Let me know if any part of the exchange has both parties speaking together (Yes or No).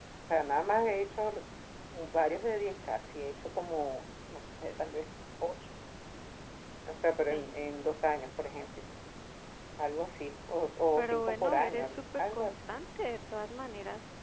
Yes